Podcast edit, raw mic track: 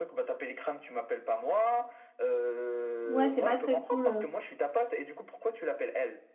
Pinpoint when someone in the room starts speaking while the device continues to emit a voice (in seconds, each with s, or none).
3.1 s